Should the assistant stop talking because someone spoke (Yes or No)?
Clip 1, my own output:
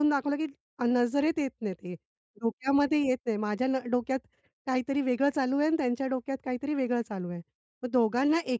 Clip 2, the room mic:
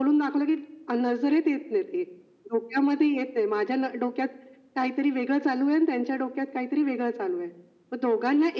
No